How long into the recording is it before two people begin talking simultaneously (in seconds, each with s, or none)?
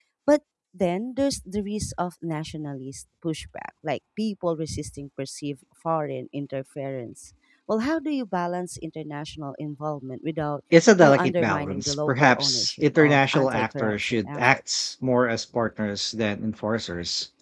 11.0 s